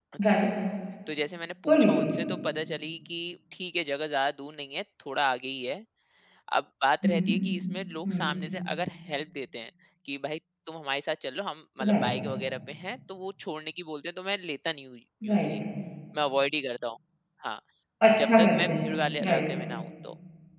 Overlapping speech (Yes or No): Yes